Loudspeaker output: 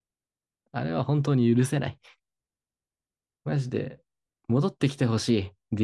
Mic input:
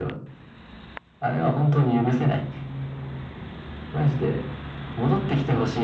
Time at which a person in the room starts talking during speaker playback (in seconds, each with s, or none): none